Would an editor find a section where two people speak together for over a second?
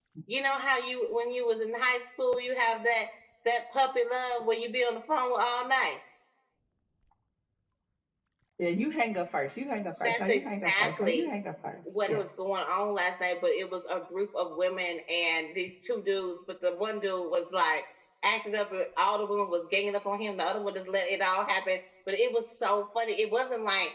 Yes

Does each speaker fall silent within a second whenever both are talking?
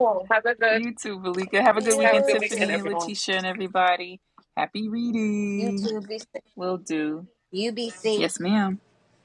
No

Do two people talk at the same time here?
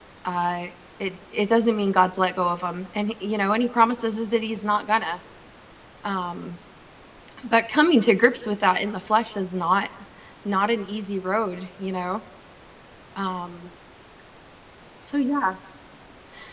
No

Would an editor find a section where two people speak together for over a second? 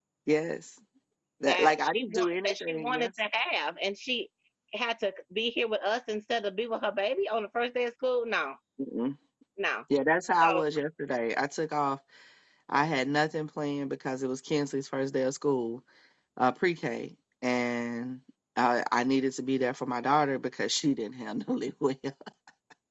Yes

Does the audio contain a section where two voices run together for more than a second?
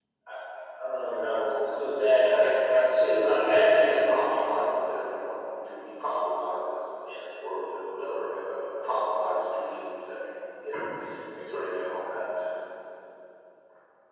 Yes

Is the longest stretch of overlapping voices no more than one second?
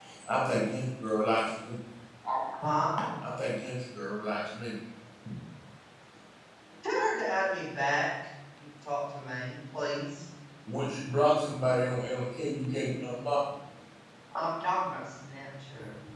Yes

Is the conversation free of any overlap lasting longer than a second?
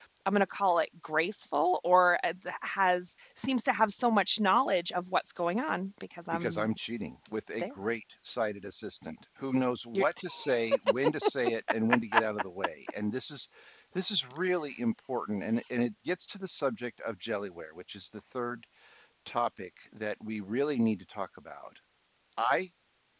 Yes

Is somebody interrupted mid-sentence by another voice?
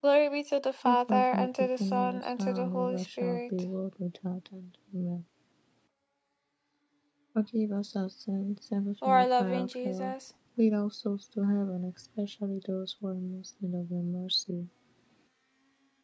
Yes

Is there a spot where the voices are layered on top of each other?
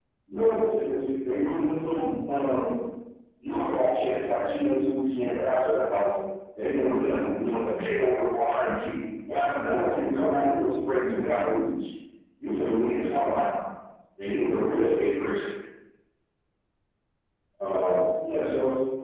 No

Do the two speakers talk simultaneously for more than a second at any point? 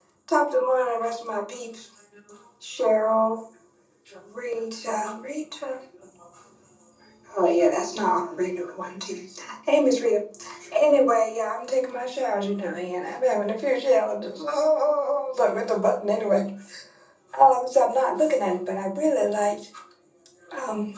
No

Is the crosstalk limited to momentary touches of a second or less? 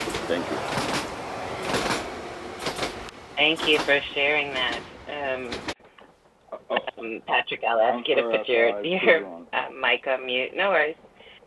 No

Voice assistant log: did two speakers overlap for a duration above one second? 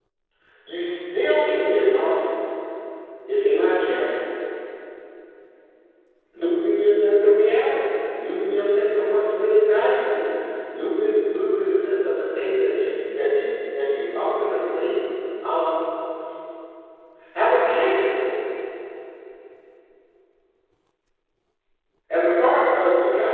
No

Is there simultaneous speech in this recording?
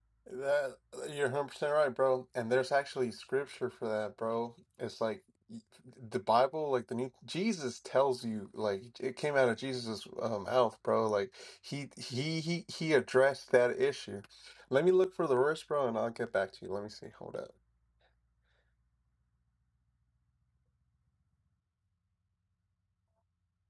No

